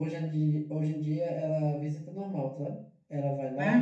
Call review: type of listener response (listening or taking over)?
listening